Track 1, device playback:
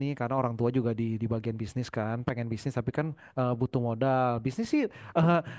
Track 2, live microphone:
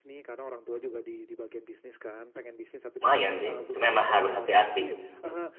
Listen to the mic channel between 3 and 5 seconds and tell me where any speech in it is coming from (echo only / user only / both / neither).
both